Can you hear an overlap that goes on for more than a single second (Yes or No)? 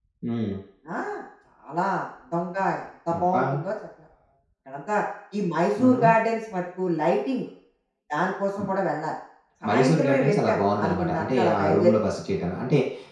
Yes